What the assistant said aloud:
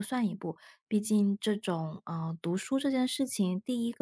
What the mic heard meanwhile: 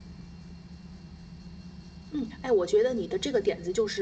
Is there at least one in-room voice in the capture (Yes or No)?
Yes